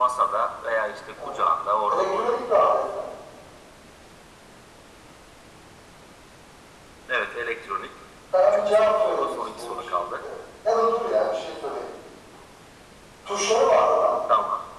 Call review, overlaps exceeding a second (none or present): present